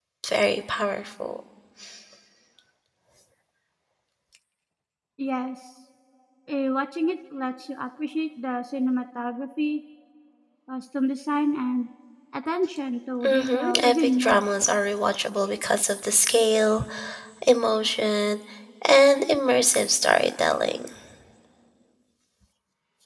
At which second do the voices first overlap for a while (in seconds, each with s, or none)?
13.2 s